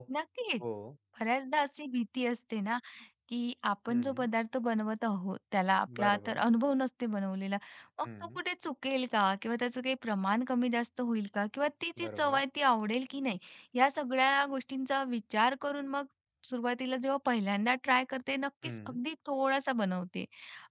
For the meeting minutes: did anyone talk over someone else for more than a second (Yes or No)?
No